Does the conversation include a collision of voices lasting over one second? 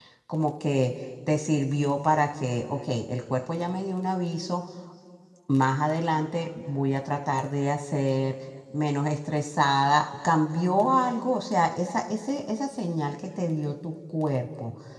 No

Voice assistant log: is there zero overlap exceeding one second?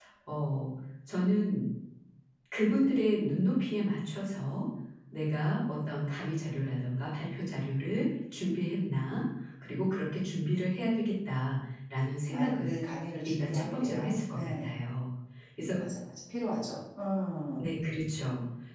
No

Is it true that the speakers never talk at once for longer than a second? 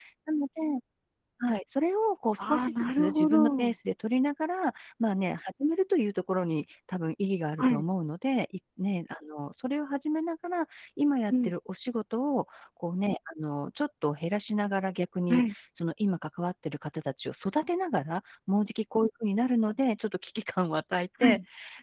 No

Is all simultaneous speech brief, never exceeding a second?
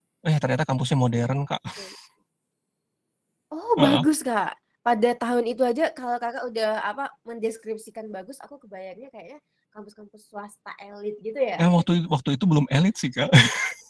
Yes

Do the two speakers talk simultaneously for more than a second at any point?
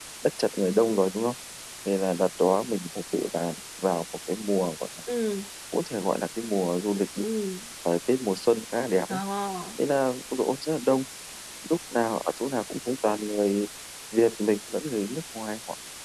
No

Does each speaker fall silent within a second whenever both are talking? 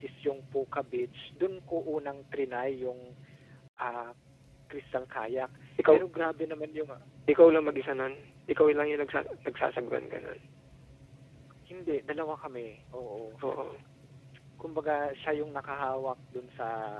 Yes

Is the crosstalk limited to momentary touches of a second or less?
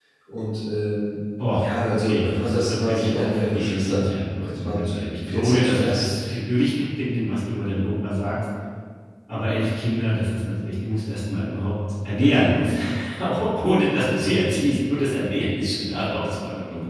No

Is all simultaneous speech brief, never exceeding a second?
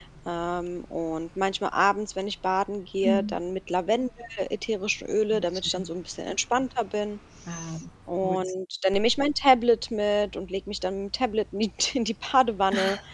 Yes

